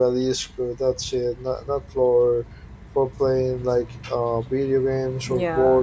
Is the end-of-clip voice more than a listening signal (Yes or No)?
Yes